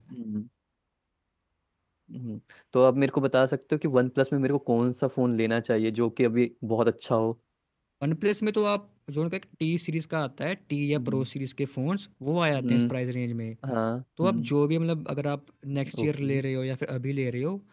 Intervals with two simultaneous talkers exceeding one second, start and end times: none

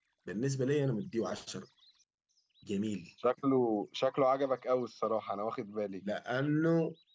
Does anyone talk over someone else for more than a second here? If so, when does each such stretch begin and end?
none

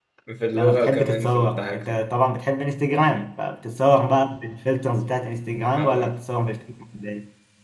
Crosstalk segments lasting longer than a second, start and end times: 0.5-2.0

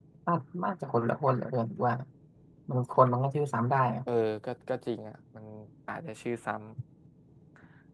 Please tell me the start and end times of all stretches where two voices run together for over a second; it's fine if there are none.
none

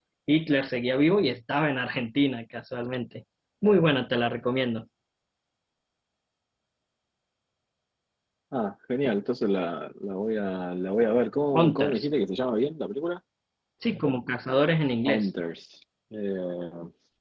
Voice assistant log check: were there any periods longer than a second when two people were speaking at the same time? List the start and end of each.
none

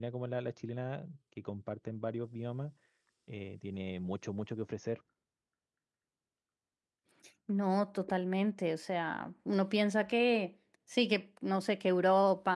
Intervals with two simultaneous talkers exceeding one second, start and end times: none

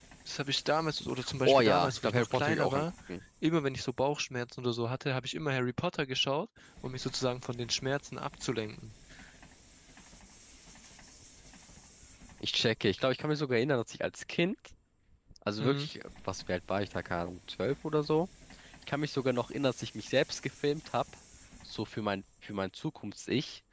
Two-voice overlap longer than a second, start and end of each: 1.5-2.9

